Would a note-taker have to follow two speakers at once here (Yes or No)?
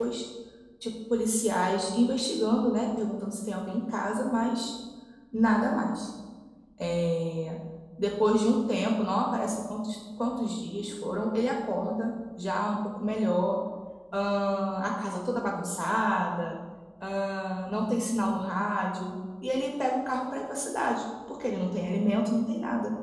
No